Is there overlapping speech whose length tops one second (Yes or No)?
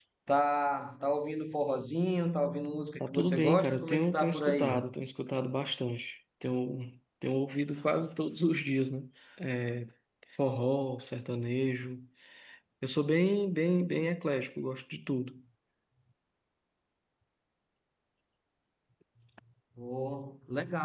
Yes